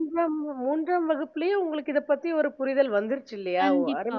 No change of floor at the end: No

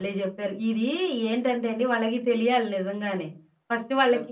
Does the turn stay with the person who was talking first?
Yes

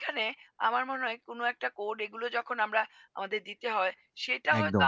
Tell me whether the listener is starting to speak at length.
No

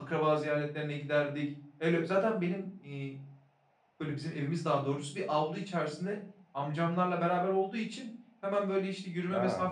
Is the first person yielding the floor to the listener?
No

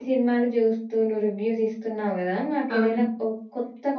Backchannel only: Yes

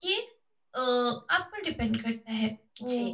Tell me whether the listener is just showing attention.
Yes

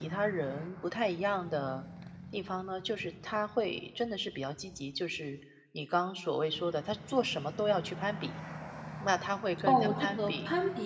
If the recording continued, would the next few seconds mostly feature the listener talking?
Yes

